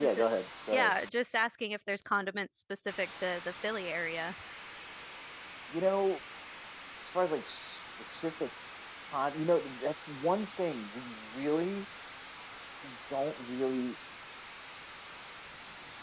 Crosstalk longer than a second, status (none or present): none